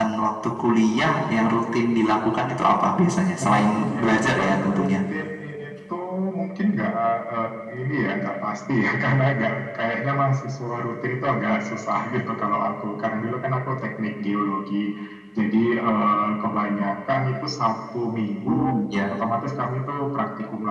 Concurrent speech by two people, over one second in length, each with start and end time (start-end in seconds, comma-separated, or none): 3.4-4.9